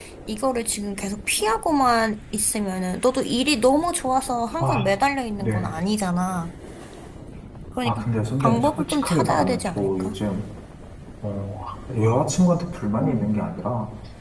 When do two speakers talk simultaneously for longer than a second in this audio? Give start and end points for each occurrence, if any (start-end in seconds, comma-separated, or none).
8.4-10.2